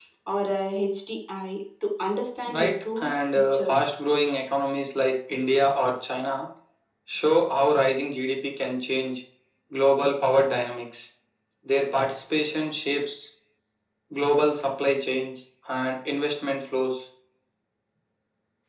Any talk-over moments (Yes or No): Yes